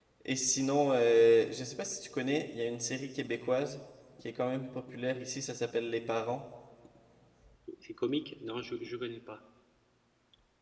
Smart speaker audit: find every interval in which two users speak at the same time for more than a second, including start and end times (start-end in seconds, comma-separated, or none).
none